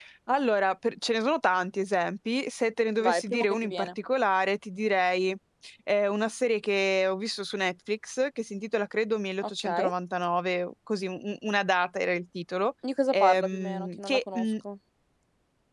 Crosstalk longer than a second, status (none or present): present